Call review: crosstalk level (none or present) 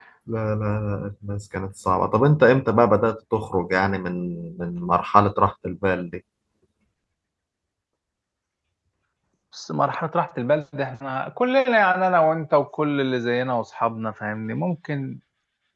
none